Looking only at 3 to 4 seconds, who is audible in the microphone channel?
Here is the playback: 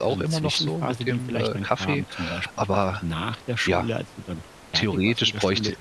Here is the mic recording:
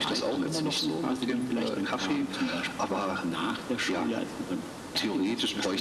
echo only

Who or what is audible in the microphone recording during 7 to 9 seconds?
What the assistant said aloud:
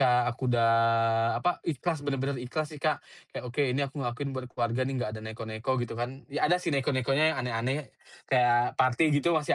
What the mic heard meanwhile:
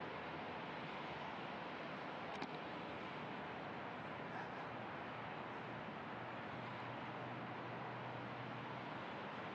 neither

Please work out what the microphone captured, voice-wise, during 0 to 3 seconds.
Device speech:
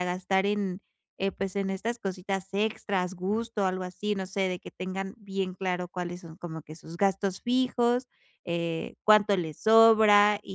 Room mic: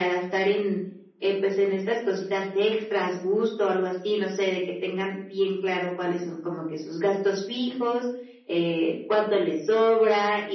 echo only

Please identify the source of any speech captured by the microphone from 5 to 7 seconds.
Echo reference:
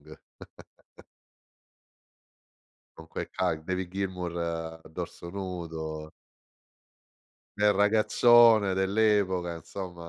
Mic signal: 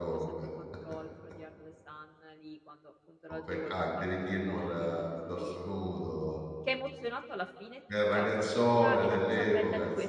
both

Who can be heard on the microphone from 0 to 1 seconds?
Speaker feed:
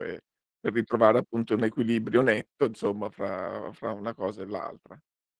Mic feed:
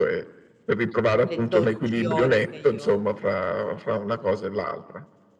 echo only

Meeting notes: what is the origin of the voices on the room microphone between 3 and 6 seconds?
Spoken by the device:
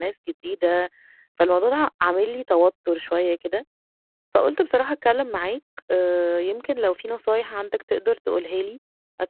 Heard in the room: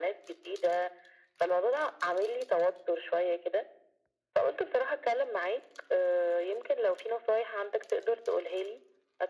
echo only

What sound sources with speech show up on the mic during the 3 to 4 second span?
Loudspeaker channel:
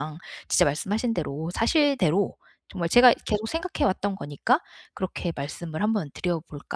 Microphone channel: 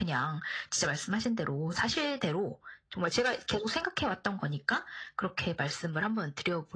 echo only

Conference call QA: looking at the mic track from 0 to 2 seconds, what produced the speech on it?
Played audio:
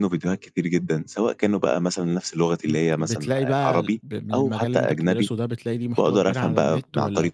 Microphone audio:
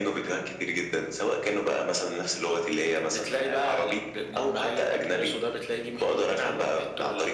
echo only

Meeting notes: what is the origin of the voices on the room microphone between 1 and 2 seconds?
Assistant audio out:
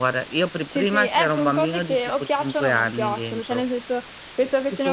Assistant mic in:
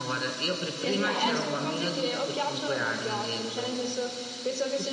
both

